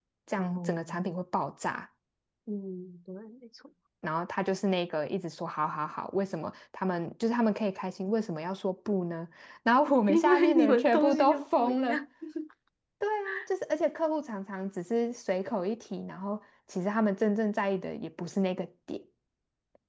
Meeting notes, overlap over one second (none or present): present